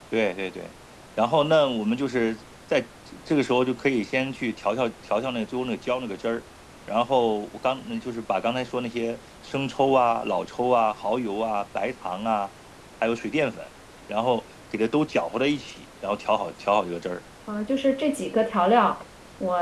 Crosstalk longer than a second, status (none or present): none